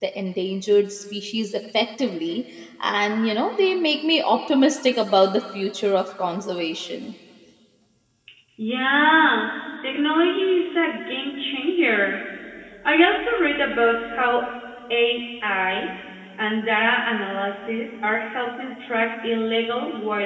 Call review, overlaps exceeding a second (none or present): none